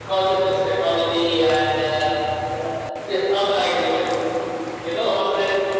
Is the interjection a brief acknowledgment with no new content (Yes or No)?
Yes